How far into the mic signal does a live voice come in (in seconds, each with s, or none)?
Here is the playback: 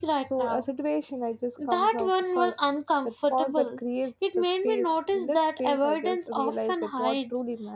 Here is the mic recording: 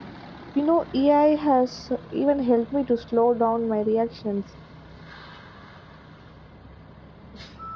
0.5 s